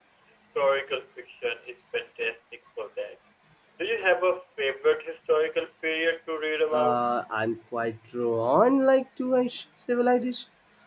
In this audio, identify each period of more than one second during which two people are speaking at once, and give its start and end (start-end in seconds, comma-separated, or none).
none